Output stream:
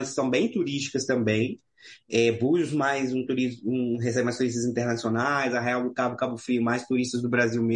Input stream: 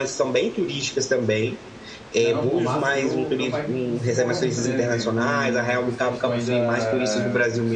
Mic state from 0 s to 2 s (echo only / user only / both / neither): echo only